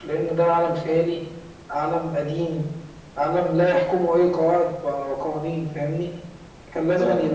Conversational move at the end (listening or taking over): listening